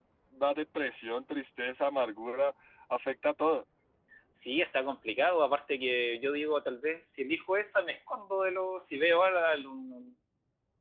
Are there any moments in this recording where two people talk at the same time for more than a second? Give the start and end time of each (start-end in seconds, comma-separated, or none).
none